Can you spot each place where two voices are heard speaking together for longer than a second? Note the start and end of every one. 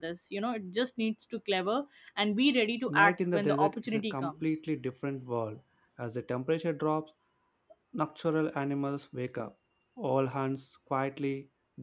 2.9-4.6

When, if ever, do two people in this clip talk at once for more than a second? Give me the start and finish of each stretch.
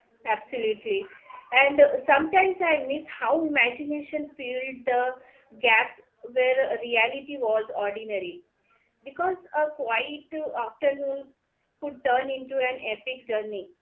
none

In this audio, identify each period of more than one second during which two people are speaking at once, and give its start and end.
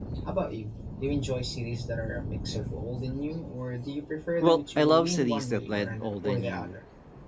4.4-6.8

